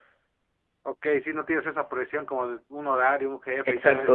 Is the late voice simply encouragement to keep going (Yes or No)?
No